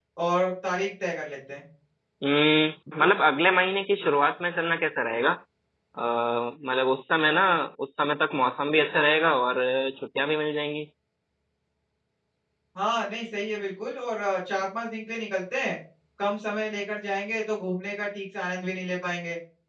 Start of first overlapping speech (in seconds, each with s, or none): none